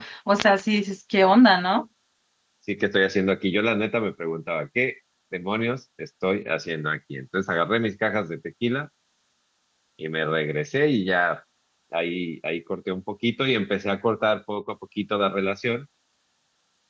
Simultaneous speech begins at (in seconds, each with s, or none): none